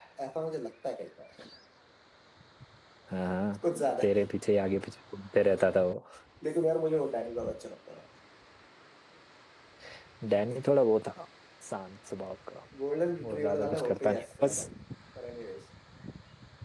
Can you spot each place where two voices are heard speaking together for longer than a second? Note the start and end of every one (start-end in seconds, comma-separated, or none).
13.2-14.7